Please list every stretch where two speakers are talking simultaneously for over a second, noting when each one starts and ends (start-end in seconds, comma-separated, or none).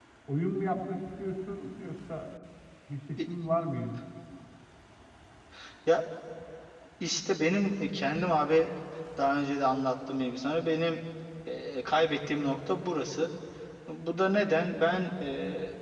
none